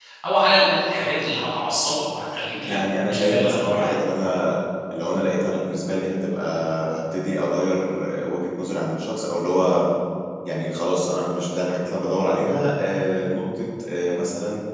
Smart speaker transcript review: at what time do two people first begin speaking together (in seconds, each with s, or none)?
2.7 s